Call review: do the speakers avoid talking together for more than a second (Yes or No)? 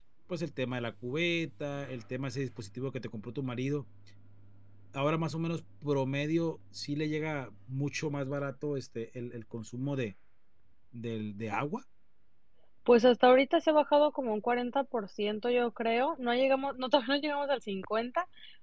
Yes